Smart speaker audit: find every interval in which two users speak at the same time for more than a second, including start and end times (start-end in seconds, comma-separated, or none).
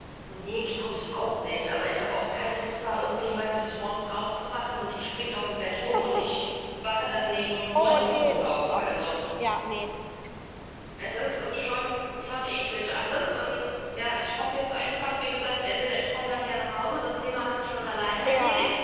7.8-9.1